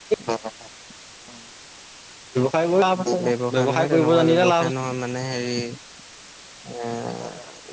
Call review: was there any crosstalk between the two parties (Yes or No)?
Yes